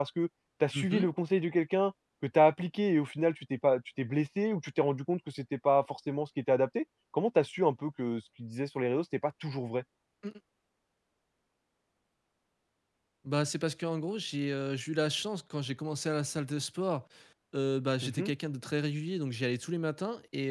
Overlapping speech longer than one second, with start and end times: none

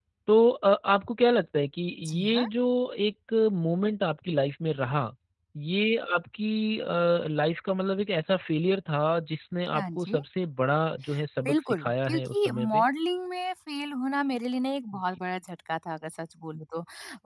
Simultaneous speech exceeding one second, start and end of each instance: 11.4-12.8

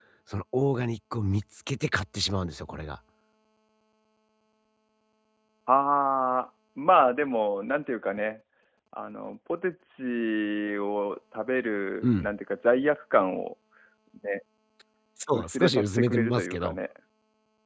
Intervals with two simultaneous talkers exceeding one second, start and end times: 15.3-16.8

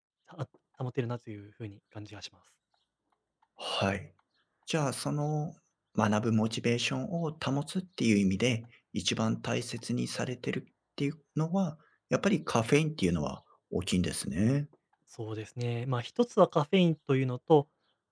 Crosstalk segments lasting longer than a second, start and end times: none

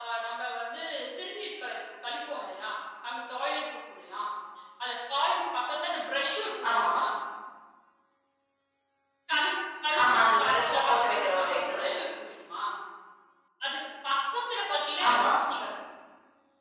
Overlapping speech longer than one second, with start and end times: 10.0-11.9

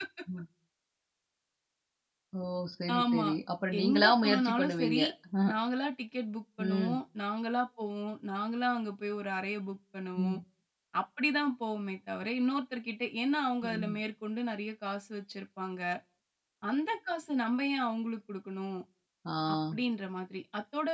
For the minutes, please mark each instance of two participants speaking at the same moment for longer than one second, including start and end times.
3.8-5.0

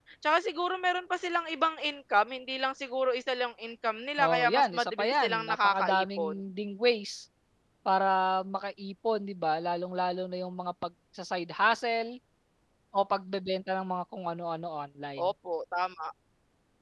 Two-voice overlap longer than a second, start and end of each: 4.2-6.3

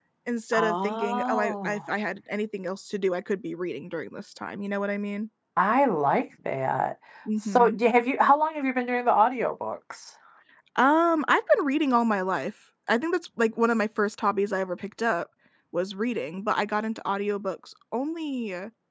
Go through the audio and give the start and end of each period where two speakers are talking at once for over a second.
0.5-1.8

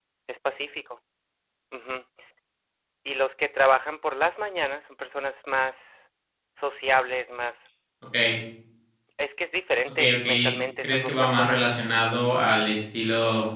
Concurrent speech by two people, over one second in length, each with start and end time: 9.9-11.6

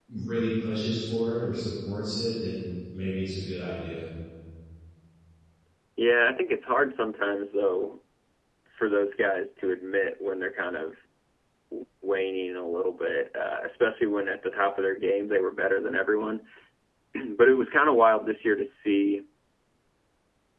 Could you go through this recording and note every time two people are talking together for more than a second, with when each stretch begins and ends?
none

